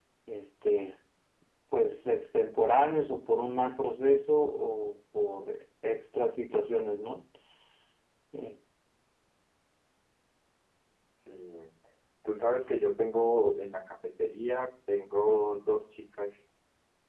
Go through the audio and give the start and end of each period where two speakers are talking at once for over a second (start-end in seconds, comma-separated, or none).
none